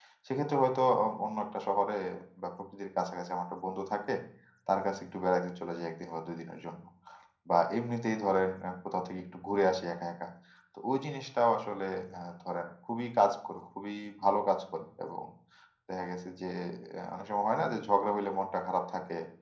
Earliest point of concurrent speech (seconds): none

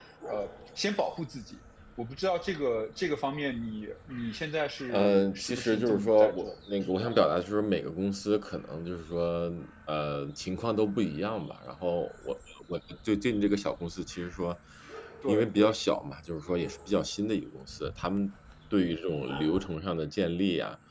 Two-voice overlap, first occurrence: 5 s

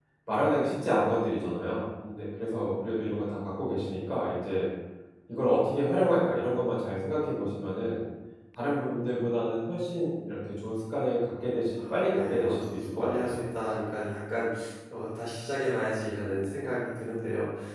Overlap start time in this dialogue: 12 s

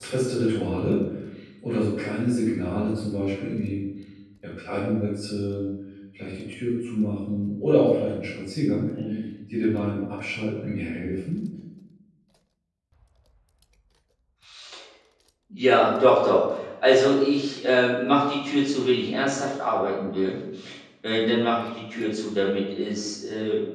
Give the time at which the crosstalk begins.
none

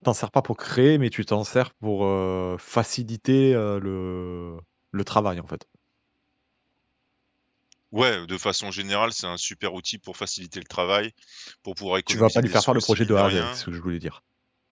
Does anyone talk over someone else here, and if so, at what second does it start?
12 s

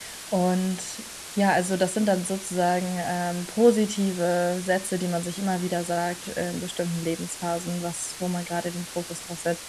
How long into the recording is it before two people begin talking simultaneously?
none

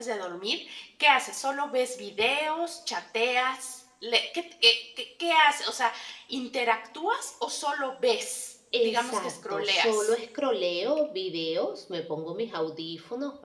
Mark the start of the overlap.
9 s

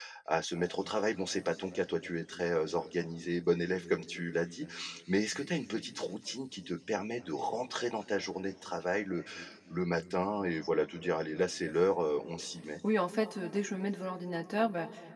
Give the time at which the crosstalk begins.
none

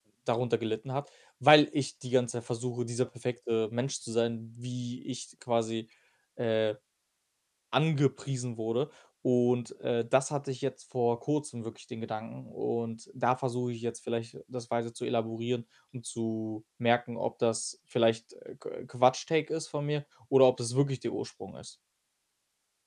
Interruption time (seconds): none

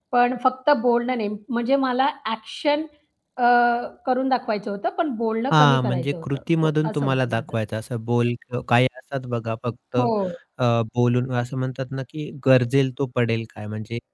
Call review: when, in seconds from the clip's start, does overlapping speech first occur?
6 s

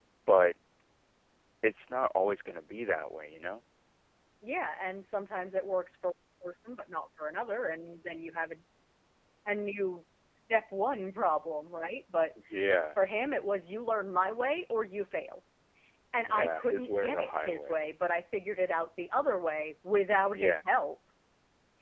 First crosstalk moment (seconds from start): 16 s

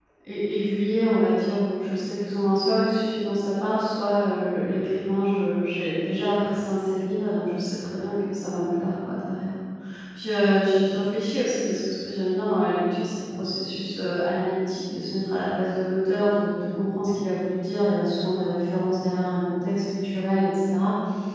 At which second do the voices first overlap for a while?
none

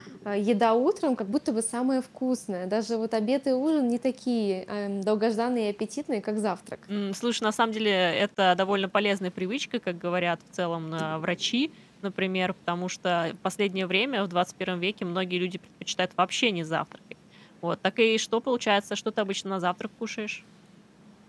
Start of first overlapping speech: none

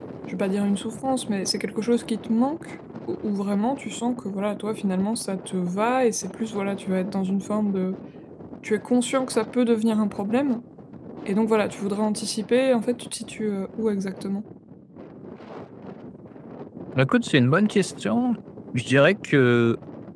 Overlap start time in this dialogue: none

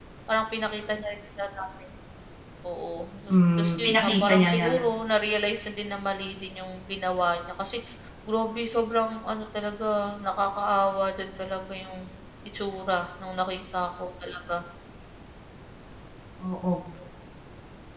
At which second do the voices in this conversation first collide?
3 s

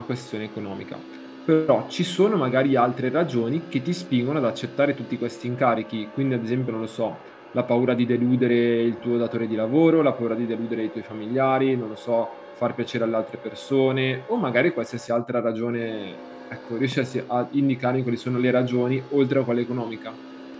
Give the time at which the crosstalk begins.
none

